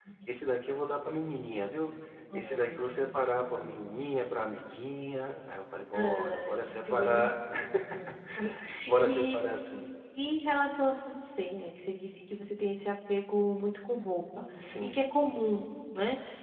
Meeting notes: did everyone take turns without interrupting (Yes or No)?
No